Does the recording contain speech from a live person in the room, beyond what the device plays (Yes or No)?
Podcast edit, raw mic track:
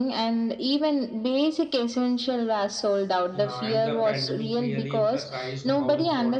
Yes